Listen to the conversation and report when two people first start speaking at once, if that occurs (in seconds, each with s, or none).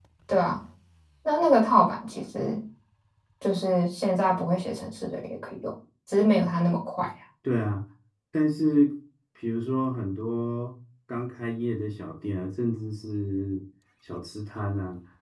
none